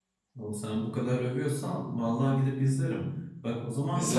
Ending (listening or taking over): listening